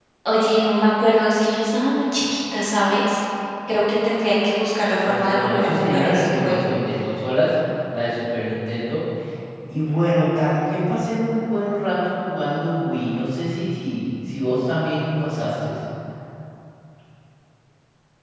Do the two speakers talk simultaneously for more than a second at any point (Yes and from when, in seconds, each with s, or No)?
Yes, from 5.0 s